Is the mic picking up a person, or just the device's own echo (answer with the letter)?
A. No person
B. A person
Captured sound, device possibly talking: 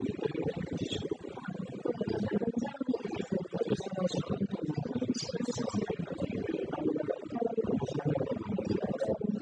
A